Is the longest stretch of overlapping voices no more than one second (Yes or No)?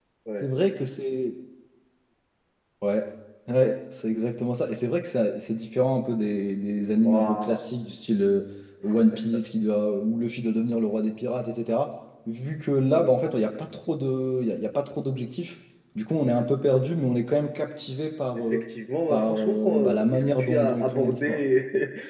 No